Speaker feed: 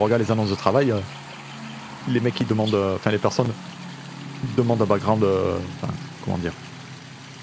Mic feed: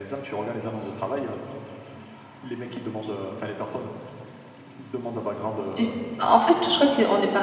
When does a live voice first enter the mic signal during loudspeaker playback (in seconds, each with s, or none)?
5.8 s